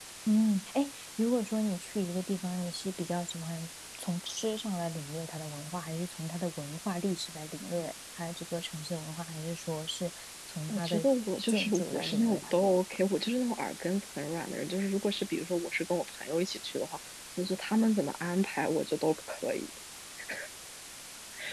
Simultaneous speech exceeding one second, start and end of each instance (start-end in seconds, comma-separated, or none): 11.5-12.8